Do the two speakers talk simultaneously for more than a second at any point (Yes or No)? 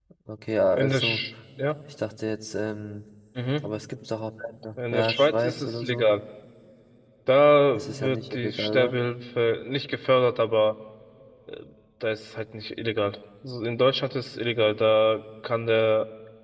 Yes